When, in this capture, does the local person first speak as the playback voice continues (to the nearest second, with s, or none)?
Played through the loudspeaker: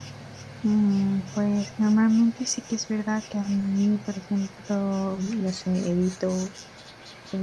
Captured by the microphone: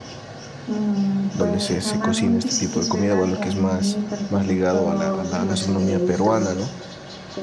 1 s